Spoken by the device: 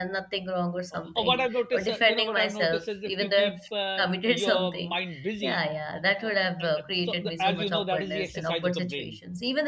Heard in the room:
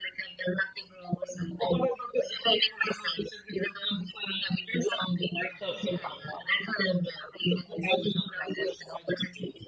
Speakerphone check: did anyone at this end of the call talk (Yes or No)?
Yes